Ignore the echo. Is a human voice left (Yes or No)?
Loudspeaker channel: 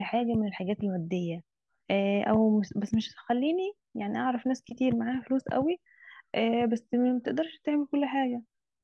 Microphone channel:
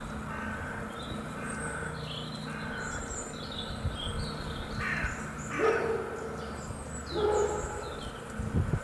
No